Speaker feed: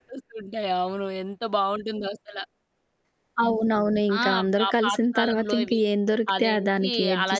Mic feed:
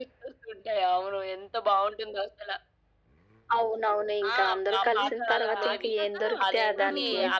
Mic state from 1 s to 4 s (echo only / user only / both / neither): echo only